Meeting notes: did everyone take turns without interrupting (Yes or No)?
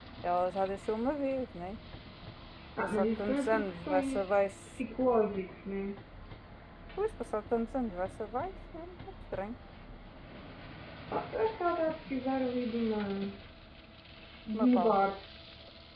No